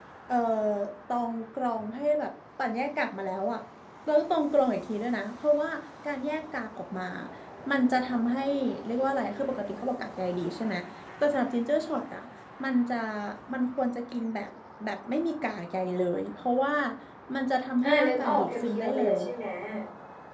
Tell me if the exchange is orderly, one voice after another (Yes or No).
No